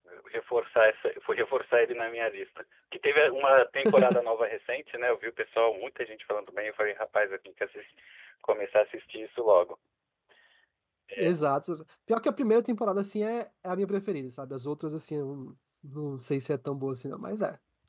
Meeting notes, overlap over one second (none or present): none